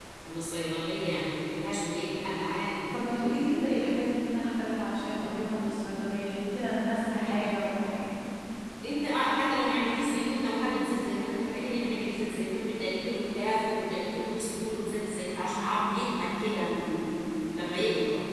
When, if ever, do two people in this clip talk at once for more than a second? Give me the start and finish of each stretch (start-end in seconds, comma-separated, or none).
none